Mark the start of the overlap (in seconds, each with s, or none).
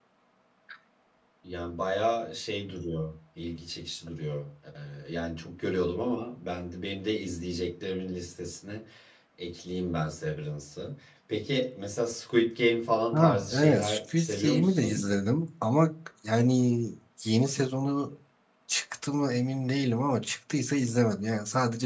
13.1 s